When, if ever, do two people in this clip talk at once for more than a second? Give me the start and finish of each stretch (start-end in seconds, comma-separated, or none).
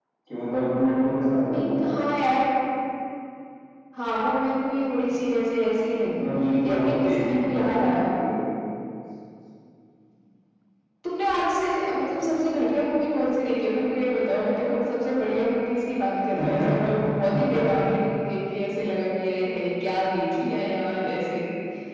6.6-8.1